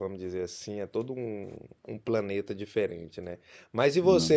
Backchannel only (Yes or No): Yes